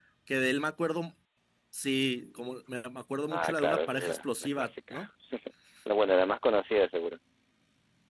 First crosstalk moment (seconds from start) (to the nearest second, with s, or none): 3 s